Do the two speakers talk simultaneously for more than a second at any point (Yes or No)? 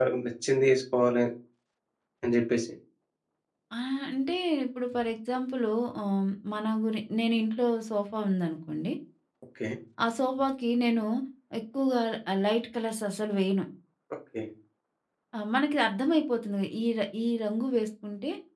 No